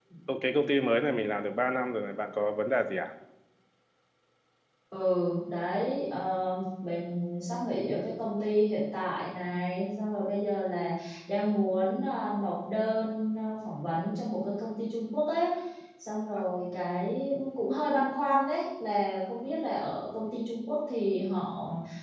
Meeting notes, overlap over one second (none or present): none